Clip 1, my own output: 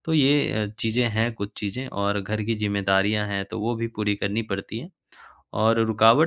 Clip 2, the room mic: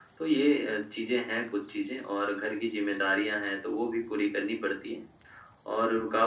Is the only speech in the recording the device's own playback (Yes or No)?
Yes